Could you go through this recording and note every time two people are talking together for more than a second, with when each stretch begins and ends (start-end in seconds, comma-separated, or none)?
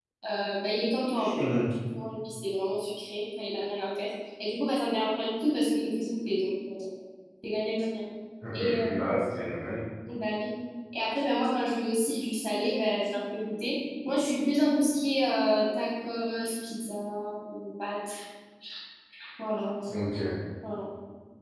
none